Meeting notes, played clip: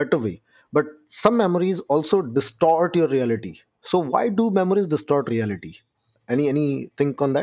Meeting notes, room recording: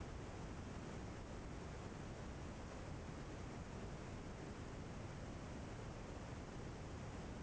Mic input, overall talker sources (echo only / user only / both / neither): neither